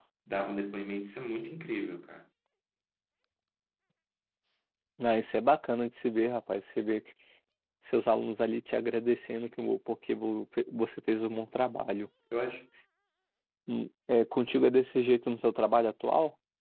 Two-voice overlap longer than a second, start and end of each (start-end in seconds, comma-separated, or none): none